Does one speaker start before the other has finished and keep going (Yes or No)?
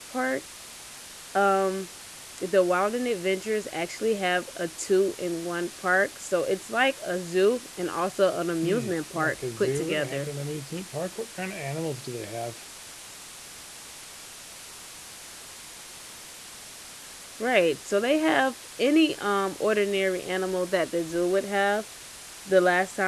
Yes